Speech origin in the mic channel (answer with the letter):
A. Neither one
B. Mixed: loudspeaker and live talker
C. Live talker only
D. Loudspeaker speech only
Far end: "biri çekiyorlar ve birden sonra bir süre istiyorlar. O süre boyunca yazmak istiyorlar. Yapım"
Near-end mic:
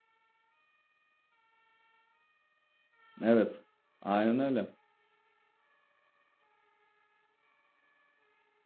C